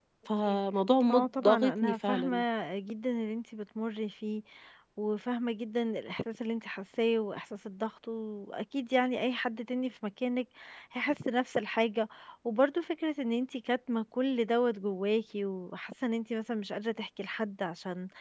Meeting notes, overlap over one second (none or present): present